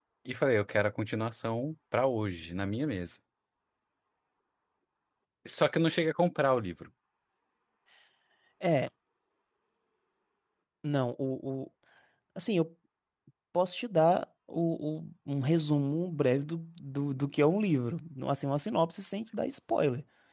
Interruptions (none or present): none